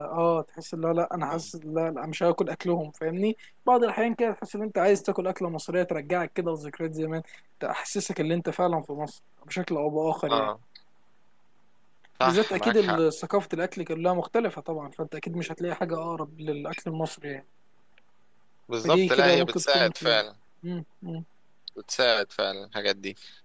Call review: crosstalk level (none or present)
present